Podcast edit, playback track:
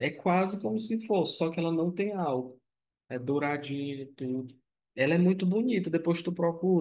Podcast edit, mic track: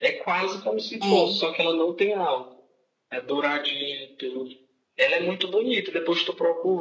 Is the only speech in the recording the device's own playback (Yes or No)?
No